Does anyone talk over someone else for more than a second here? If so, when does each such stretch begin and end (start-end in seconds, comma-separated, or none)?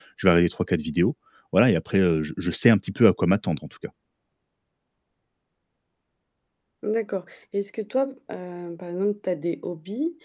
none